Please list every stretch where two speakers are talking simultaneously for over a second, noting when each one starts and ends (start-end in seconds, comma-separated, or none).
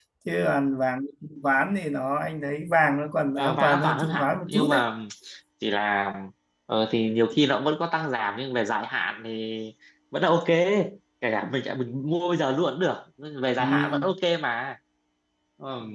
3.4-4.8